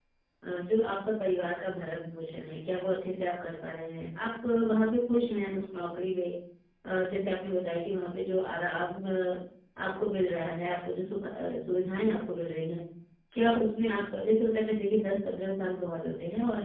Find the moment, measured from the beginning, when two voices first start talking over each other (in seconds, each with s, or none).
none